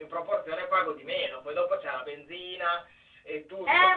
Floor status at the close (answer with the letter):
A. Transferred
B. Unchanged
A